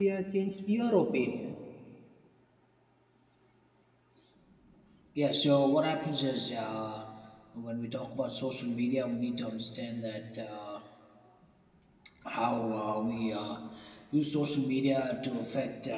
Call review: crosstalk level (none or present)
none